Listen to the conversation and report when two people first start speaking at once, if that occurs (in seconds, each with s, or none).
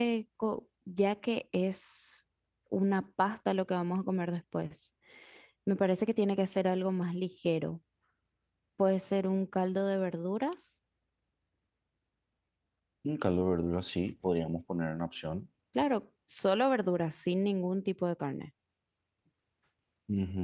none